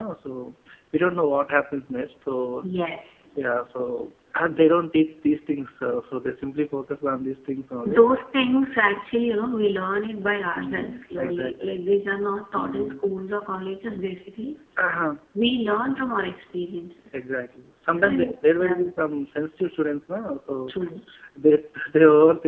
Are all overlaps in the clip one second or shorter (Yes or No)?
No